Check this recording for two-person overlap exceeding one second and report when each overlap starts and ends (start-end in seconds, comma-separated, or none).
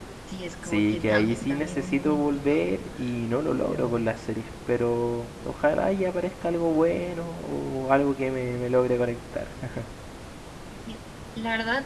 0.6-2.6